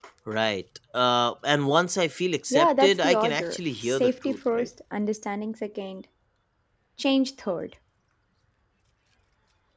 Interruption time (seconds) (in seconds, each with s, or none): 2.5 s